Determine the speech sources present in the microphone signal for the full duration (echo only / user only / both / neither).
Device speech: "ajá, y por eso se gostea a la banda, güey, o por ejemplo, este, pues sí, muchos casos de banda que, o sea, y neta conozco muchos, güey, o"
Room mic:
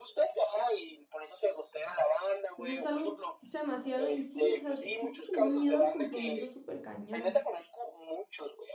both